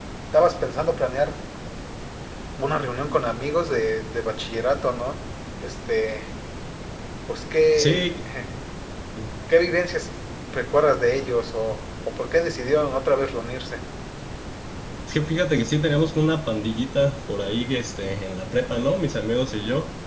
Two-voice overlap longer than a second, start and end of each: none

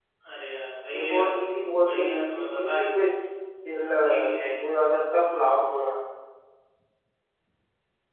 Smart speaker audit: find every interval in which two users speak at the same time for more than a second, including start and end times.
0.9-2.9

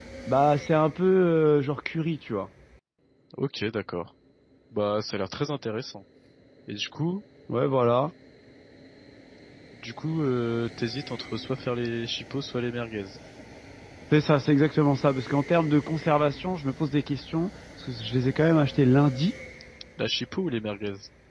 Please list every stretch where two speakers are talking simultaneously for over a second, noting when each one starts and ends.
none

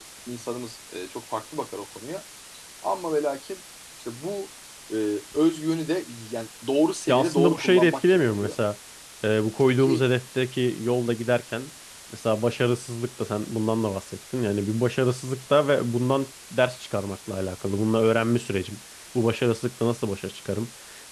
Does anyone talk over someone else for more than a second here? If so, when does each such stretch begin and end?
7.1-8.6

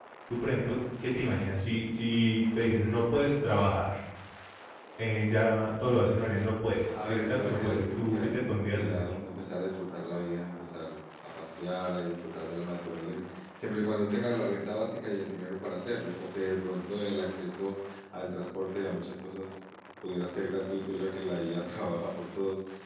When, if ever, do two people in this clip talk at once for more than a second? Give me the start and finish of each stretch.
7.1-9.1

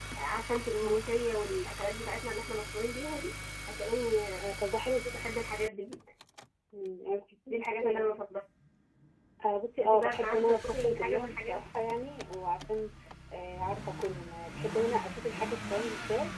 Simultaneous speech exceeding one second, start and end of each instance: 9.8-11.7

